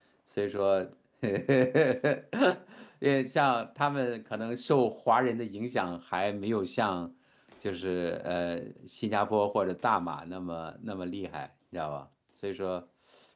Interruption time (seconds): none

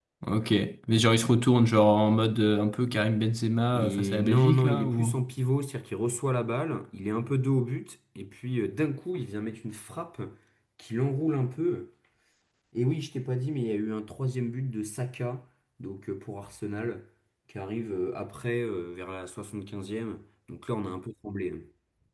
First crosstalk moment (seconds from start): 3.7 s

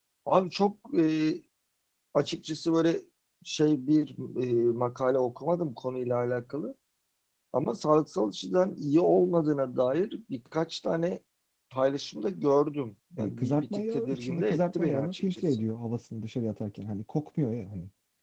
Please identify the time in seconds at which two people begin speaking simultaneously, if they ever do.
13.2 s

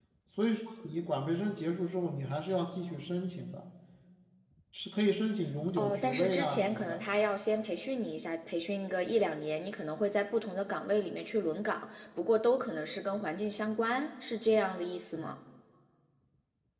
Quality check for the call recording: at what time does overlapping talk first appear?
5.8 s

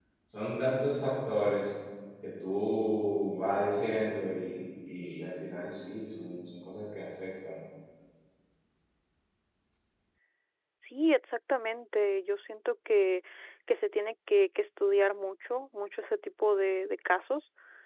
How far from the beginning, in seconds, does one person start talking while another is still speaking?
none

